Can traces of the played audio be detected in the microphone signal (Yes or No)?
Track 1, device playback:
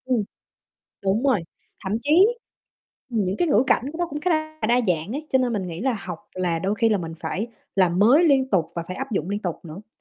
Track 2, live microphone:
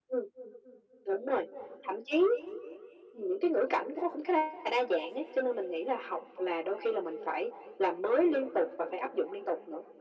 Yes